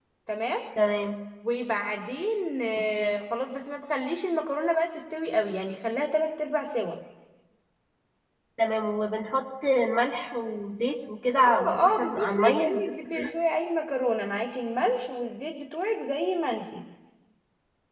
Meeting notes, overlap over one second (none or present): present